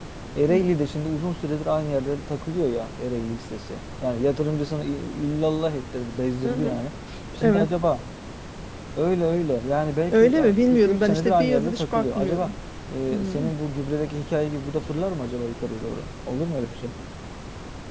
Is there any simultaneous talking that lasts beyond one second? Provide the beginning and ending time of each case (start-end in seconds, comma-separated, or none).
10.1-12.5